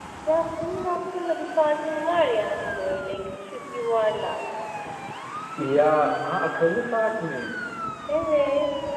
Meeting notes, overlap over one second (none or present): none